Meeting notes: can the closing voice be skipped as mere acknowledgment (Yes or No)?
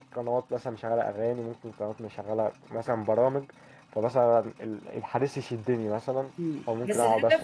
No